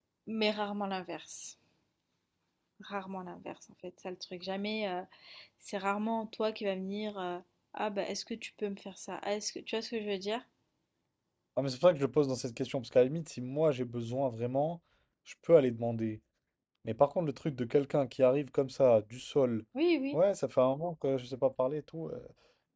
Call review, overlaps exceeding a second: none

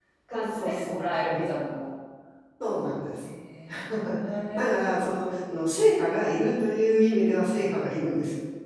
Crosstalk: present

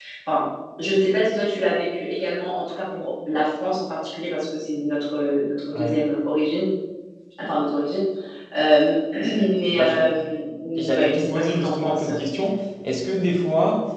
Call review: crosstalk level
present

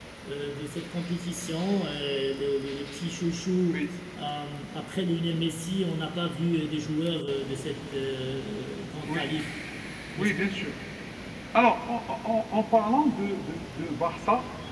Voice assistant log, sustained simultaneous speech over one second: none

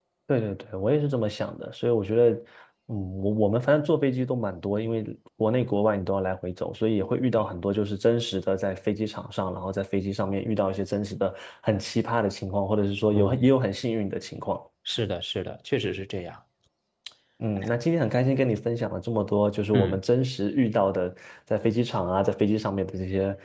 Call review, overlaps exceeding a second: none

